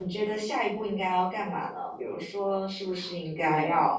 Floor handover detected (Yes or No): No